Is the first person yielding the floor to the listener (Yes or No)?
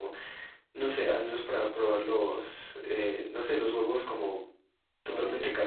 No